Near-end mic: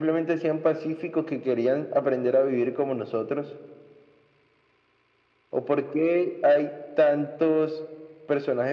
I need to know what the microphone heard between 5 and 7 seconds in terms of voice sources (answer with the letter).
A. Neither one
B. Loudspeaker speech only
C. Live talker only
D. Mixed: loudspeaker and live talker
B